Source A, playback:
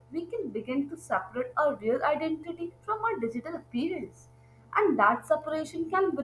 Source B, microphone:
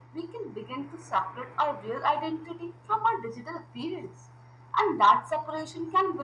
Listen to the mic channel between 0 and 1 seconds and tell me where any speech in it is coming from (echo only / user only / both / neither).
echo only